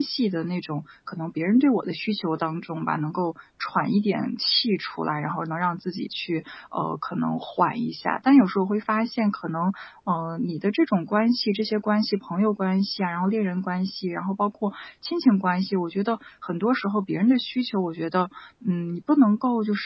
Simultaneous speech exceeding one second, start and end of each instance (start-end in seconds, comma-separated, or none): none